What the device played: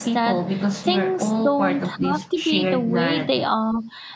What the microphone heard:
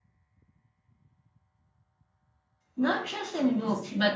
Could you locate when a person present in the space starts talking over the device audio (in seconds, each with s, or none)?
2.8 s